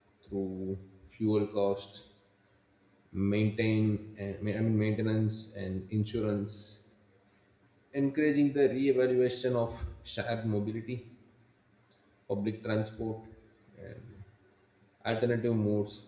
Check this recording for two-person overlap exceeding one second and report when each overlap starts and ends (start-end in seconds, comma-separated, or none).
none